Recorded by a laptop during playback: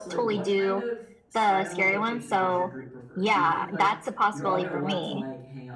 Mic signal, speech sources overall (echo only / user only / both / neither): both